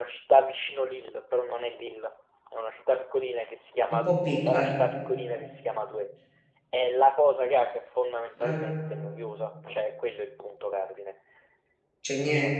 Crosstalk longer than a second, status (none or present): none